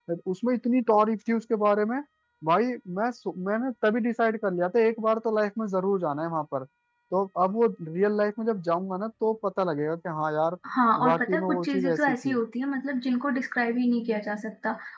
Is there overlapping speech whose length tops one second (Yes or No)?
Yes